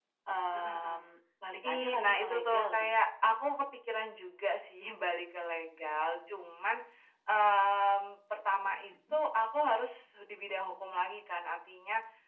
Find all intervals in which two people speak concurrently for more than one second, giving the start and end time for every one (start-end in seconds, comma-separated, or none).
1.6-3.0